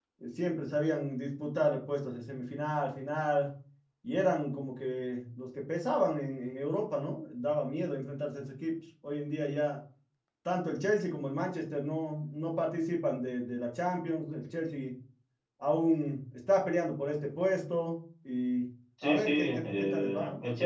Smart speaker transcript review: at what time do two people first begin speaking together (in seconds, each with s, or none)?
19.0 s